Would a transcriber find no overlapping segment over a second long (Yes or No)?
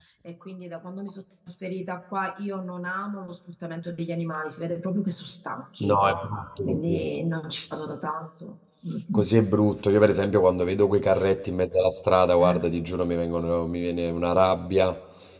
Yes